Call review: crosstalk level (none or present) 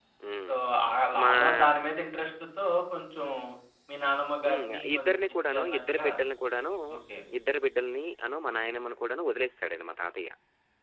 present